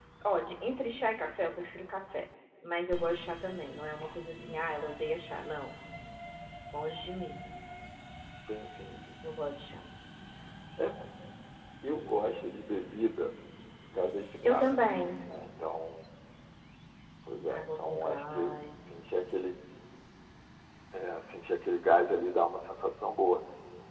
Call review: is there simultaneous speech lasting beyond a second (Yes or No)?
Yes